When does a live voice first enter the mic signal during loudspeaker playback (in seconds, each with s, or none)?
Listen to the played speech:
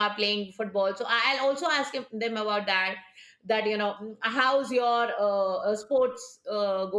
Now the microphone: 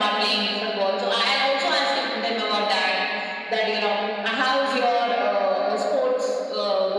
none